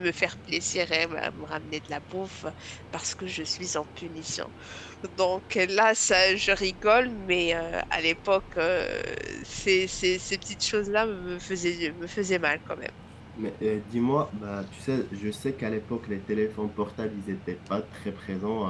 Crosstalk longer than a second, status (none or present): none